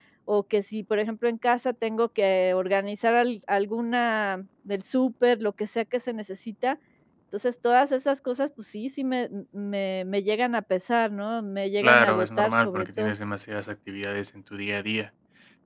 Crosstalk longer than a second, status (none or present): present